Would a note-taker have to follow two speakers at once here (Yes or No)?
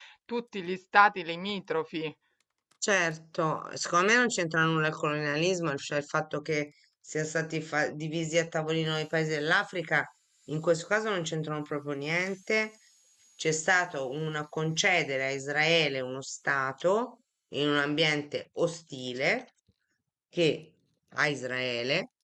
No